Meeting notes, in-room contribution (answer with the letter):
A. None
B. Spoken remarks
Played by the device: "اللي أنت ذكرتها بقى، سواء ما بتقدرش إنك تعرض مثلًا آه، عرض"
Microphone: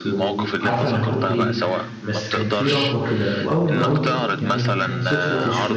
B